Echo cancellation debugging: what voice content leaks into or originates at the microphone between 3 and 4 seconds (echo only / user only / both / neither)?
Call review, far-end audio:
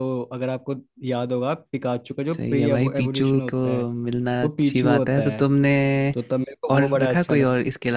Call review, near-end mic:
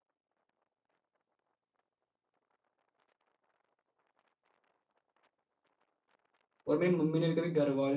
neither